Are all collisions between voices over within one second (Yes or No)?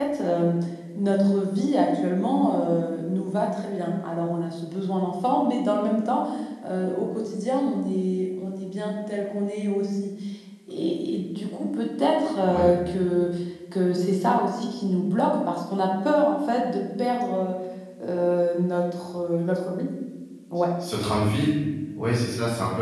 Yes